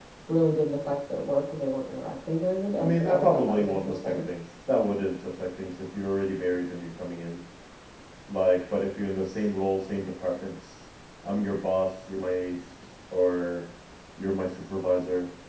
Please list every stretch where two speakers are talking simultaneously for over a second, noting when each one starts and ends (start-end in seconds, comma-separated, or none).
2.8-4.1